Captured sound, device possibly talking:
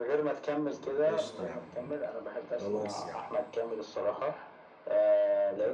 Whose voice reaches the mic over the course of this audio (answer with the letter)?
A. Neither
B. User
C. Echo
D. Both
D